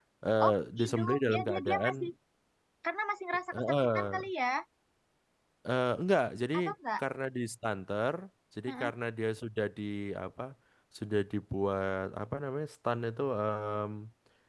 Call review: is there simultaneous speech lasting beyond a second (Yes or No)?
Yes